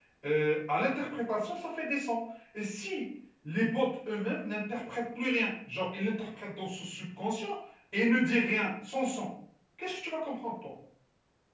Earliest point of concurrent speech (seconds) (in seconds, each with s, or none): none